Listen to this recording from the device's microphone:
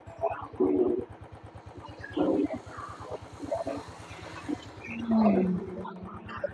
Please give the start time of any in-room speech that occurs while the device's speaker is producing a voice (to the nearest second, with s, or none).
5 s